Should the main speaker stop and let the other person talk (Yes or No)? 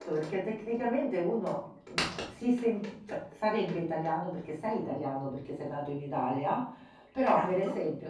No